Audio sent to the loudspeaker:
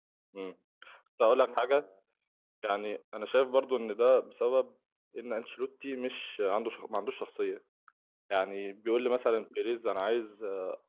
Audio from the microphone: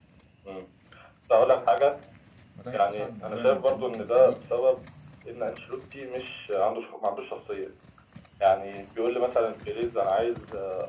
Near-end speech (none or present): present